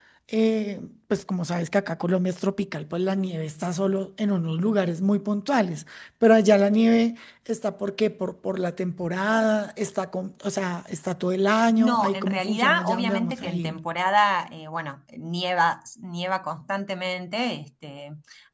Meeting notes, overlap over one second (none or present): present